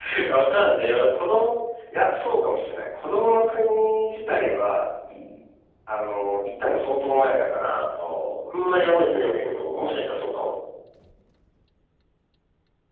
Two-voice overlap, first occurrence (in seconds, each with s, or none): 8.5 s